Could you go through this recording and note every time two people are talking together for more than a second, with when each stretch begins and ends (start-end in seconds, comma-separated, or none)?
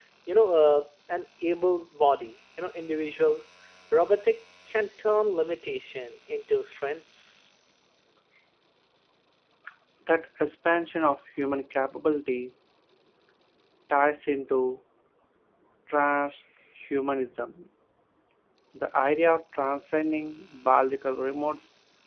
none